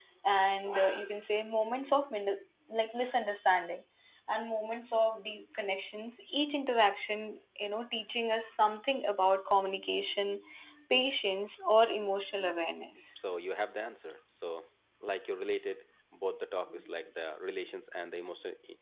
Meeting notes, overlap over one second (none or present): none